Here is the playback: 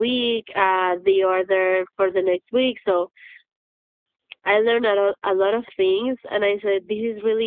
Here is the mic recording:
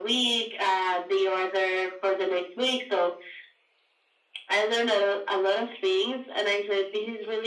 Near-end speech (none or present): none